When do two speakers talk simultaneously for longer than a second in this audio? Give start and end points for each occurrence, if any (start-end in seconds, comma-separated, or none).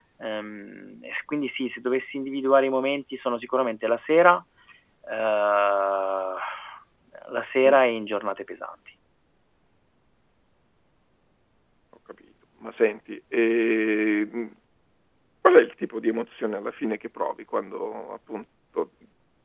none